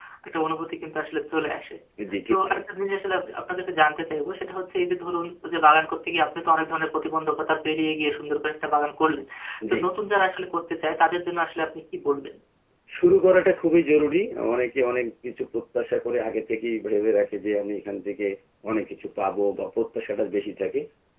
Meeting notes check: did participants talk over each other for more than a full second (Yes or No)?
No